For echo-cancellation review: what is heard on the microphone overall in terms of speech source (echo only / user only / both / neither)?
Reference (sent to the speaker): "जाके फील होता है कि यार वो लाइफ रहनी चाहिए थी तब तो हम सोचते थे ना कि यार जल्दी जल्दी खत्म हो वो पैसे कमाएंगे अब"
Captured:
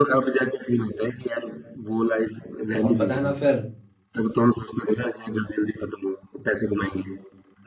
both